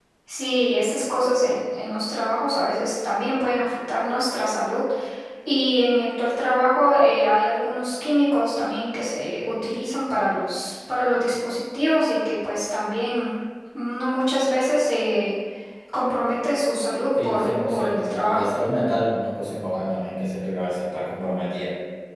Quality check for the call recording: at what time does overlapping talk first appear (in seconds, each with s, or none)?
17.2 s